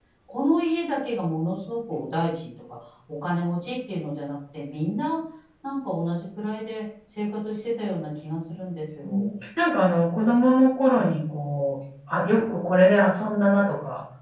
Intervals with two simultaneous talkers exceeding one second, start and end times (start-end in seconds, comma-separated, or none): none